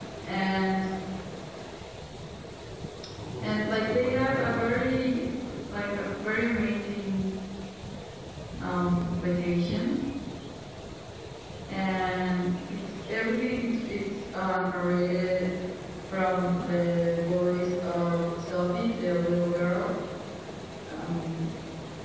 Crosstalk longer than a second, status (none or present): present